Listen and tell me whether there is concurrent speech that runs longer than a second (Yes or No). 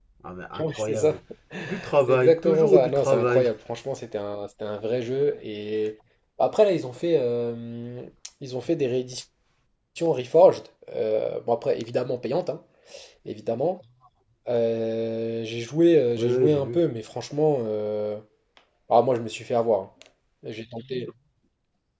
Yes